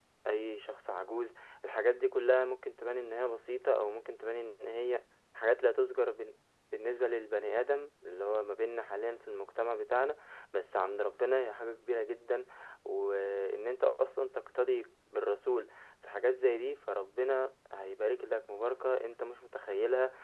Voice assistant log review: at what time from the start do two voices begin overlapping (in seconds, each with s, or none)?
none